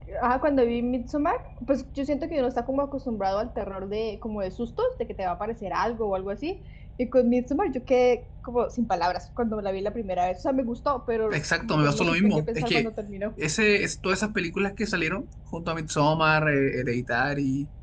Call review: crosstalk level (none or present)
present